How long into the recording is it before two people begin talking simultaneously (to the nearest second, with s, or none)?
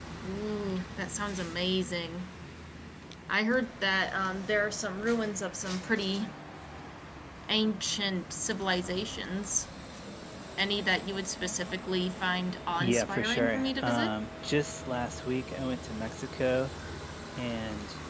13 s